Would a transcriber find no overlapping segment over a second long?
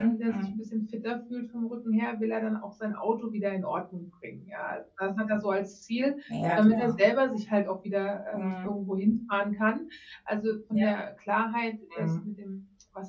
Yes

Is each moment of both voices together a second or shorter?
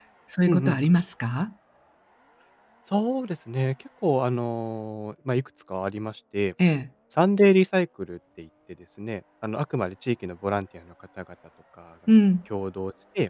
Yes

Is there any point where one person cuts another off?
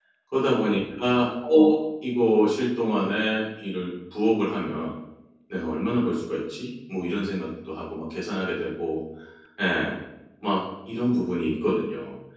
No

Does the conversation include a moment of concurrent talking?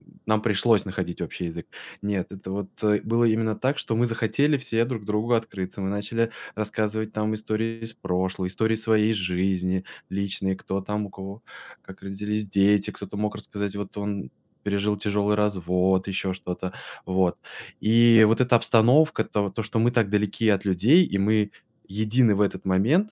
No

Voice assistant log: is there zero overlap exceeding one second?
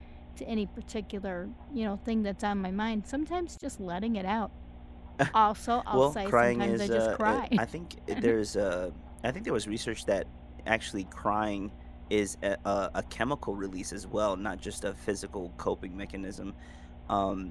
No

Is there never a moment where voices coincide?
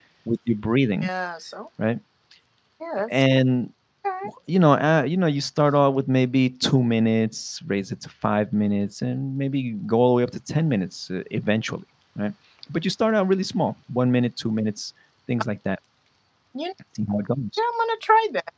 Yes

